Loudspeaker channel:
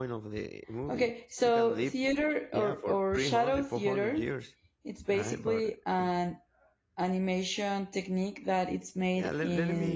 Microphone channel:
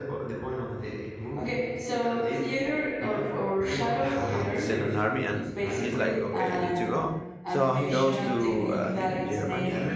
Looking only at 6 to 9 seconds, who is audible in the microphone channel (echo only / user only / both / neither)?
both